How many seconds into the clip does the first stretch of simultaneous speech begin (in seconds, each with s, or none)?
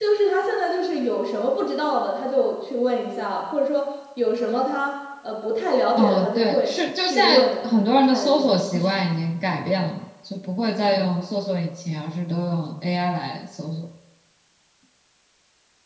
6.0 s